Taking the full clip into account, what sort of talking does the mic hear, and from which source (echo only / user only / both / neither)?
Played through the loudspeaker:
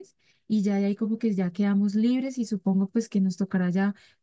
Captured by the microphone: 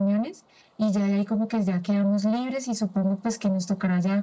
echo only